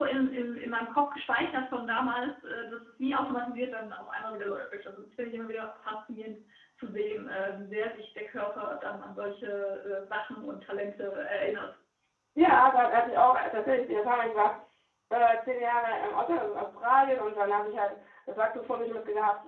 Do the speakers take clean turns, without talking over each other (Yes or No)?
Yes